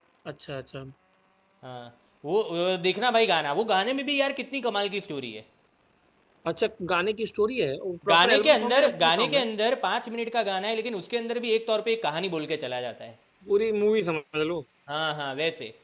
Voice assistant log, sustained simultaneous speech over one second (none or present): present